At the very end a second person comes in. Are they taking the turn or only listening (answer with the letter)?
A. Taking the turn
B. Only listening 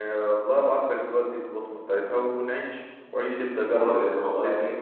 A